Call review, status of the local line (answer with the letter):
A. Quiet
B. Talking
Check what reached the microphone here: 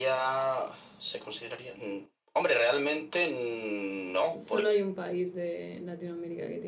B